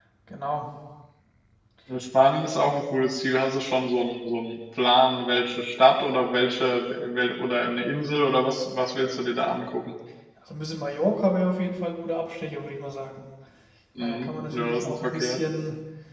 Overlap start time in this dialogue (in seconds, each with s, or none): 14.0 s